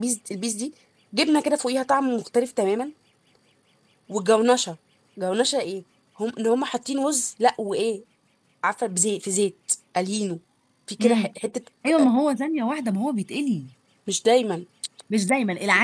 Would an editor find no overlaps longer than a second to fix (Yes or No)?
Yes